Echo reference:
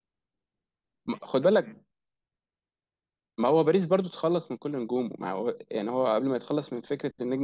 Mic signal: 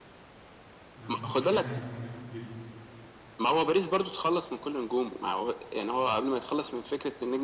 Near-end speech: present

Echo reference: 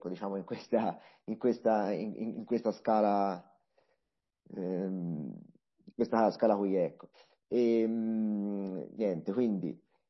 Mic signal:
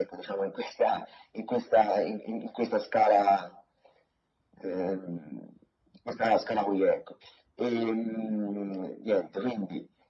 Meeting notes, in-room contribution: none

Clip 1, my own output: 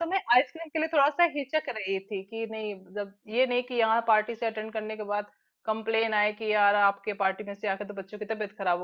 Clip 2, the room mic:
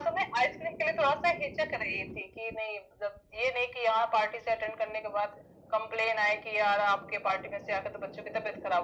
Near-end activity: none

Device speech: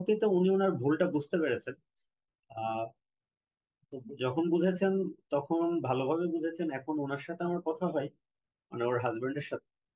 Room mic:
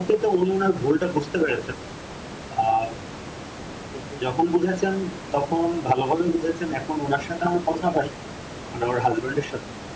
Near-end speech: none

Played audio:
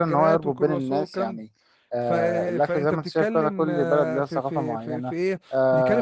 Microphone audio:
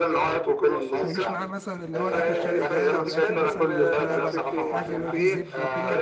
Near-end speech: present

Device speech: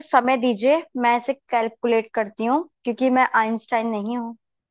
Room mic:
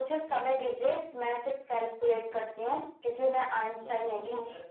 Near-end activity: present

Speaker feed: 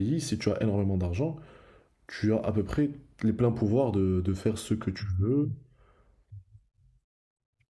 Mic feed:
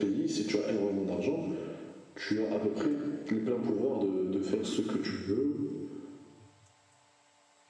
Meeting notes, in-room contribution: none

